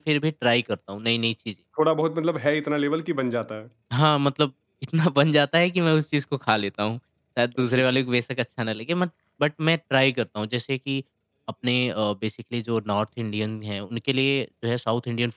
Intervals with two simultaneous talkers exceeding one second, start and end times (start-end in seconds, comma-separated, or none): none